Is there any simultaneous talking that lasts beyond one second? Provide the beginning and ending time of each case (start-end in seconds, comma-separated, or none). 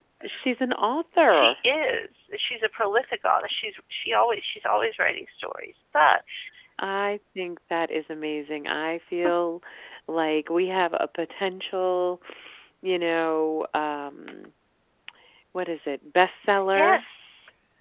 none